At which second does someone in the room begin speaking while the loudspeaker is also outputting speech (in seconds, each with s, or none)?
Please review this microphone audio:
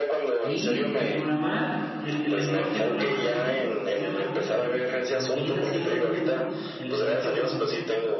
0.4 s